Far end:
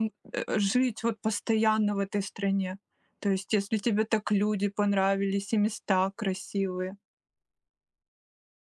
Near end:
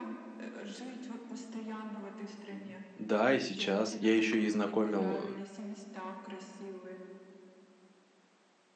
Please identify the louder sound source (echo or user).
user